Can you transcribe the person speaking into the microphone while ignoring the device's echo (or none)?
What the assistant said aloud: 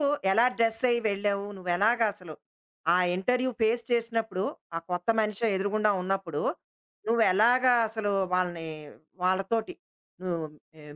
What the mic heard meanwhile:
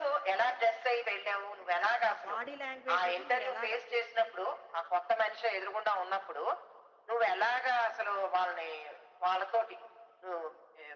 అది. ఆ బాడీ లాంగ్వేజ్ అది మీరెలాగా